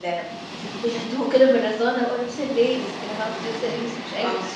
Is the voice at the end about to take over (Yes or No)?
Yes